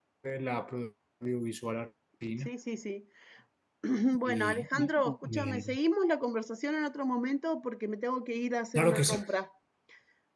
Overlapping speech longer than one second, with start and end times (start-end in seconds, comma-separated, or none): 4.2-5.8